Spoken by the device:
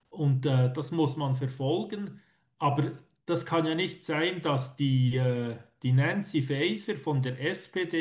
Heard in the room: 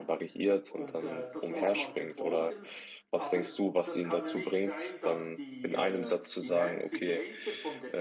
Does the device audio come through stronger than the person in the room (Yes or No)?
No